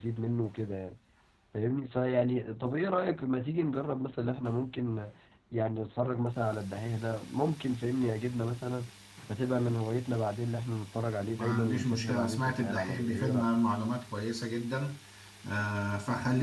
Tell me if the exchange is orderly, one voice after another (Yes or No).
No